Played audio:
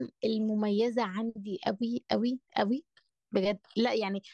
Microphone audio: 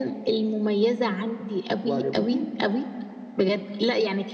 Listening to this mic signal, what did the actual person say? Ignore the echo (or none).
وعجبتني